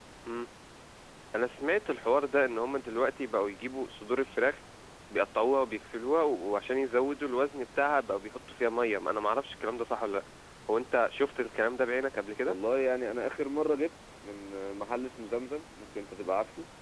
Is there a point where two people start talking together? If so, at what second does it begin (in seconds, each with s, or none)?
none